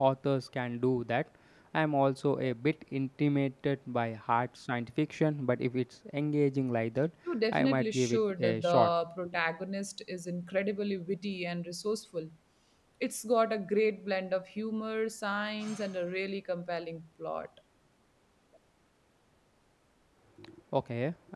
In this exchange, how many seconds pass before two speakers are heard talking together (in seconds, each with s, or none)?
7.5 s